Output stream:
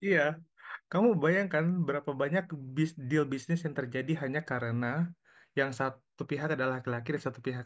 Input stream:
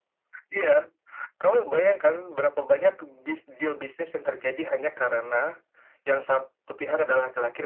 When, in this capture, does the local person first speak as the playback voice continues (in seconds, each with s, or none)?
none